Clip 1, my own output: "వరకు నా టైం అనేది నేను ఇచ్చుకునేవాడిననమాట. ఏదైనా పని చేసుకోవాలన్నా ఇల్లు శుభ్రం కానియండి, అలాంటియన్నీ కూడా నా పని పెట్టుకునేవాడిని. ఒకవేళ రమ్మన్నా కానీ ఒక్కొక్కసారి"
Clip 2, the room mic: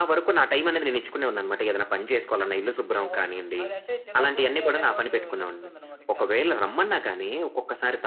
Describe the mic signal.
both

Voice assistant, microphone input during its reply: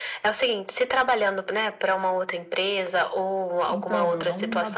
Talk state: both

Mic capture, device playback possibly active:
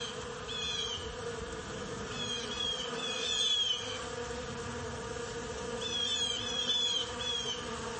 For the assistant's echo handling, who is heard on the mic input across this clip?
neither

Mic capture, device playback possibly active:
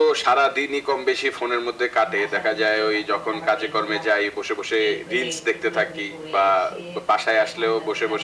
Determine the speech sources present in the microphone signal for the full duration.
both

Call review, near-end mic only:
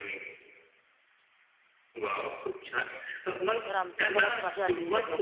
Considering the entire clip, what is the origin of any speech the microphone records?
both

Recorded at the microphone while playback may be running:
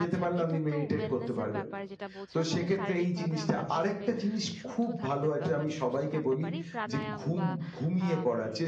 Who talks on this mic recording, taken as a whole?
both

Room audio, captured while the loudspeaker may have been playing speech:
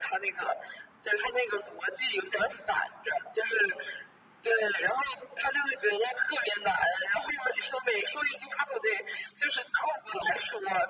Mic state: echo only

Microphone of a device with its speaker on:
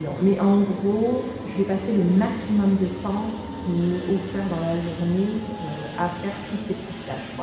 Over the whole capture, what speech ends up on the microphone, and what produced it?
user only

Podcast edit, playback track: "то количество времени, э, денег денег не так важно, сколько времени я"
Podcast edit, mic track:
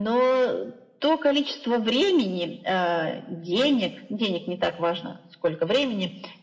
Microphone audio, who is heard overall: echo only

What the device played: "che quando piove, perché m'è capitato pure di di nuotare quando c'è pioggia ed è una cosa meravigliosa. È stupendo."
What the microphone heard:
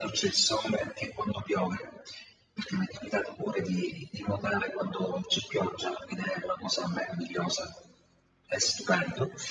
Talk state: echo only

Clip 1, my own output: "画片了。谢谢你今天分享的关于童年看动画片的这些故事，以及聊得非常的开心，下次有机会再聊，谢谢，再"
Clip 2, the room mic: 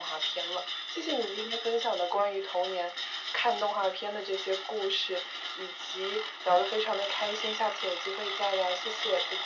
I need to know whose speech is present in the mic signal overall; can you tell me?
echo only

